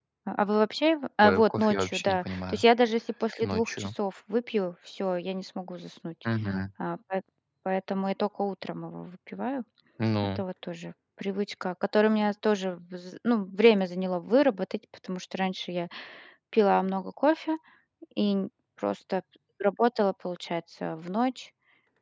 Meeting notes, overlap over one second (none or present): present